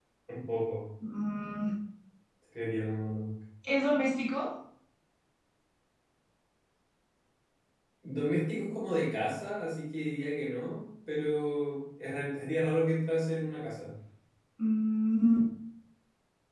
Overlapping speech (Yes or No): No